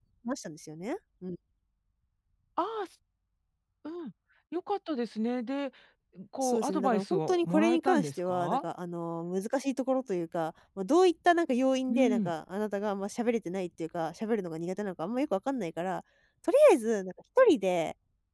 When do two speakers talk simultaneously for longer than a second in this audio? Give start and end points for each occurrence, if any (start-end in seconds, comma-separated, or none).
6.4-8.6